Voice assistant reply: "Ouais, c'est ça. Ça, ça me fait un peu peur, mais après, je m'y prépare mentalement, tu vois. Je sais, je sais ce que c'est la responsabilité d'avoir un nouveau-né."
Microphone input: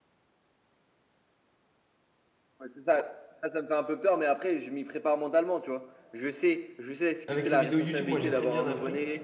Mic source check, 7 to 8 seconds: both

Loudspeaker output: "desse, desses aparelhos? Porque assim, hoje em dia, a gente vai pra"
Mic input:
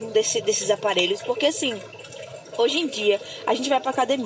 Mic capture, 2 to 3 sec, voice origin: echo only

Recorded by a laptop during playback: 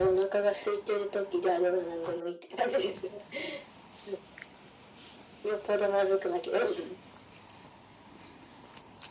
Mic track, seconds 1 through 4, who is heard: echo only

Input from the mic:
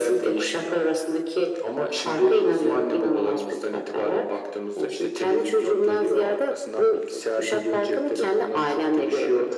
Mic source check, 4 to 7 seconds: echo only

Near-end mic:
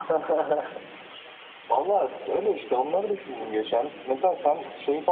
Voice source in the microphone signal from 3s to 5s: echo only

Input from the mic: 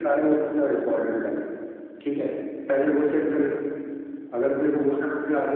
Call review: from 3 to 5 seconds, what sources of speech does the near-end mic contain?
echo only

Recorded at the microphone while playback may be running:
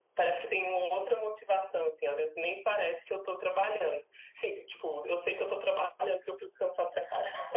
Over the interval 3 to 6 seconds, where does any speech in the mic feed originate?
echo only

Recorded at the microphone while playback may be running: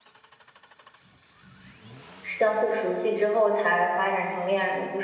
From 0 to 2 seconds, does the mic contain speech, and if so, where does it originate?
neither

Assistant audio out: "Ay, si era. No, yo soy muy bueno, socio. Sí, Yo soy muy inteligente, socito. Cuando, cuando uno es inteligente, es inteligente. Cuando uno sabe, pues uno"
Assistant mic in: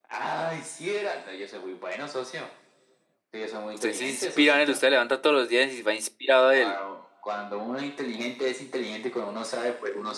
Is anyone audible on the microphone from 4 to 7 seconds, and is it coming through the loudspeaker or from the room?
both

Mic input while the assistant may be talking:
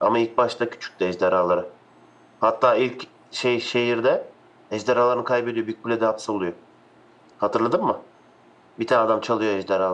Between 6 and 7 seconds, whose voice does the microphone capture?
echo only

